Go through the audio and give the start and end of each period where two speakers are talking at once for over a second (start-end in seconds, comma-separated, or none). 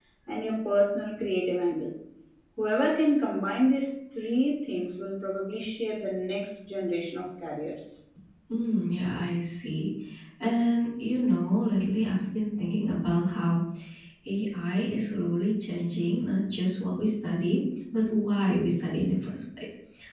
none